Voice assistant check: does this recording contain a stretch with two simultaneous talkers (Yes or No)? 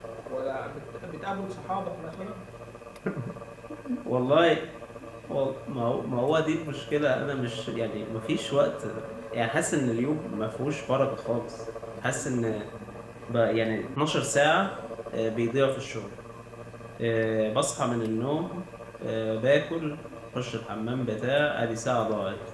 No